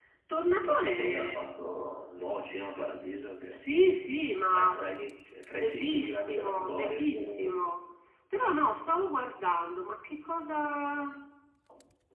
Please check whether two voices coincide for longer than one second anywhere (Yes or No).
Yes